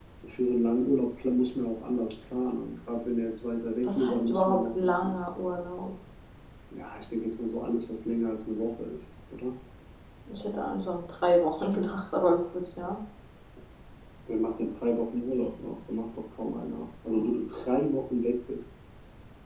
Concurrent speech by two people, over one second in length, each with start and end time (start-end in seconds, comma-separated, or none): 3.8-5.1